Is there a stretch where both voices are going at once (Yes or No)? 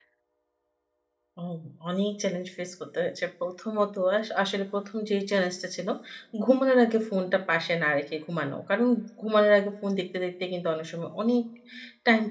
No